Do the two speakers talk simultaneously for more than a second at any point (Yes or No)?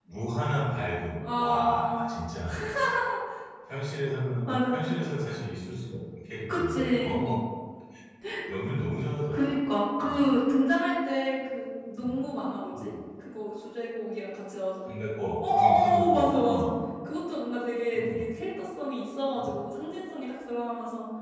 Yes